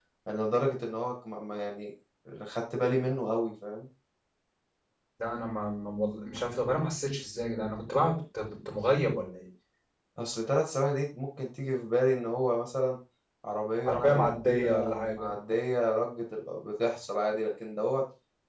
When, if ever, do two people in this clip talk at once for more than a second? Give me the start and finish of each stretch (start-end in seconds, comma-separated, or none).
13.9-15.3